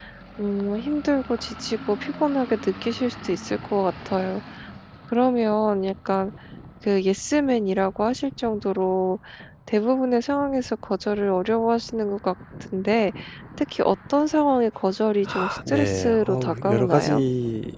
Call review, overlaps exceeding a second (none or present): present